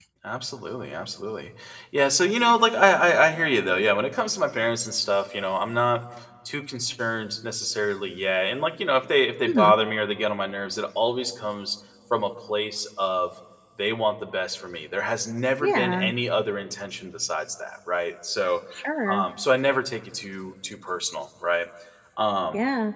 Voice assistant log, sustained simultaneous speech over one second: none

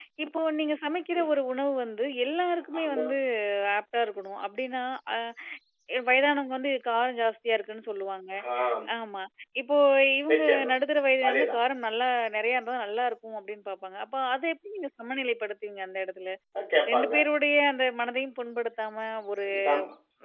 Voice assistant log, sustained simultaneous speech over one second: none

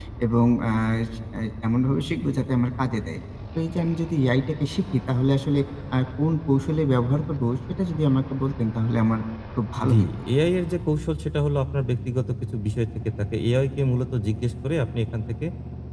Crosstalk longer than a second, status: none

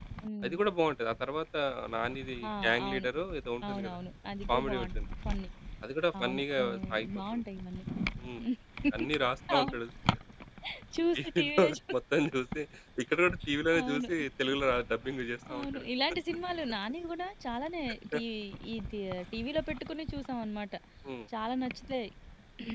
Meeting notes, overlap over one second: present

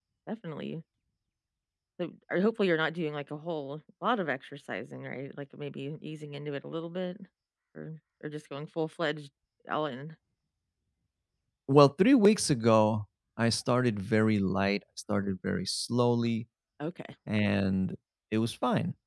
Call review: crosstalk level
none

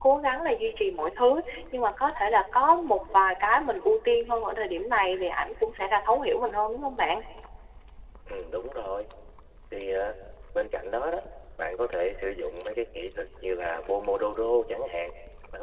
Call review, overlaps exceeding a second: none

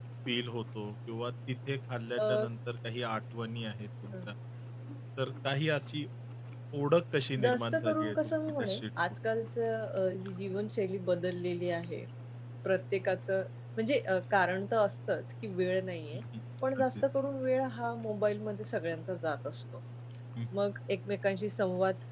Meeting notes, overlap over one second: present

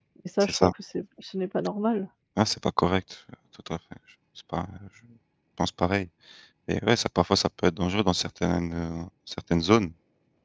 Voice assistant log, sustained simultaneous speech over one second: none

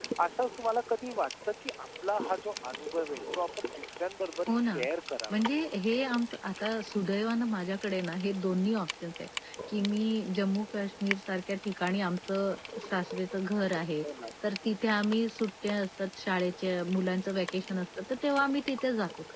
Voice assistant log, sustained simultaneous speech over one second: none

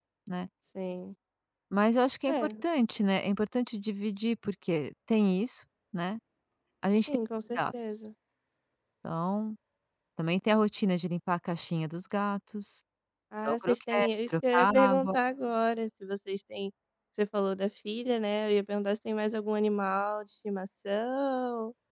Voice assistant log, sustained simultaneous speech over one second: present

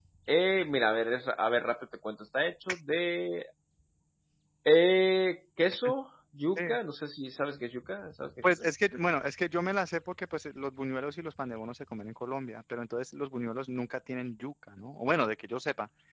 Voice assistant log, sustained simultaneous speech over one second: none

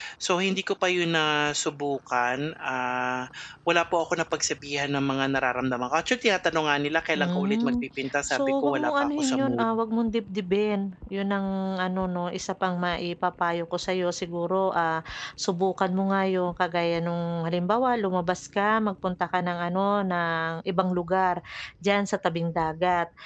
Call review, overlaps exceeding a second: present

